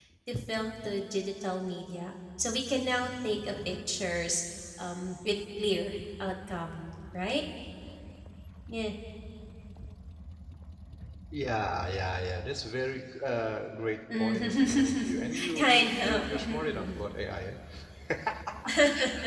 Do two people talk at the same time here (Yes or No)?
Yes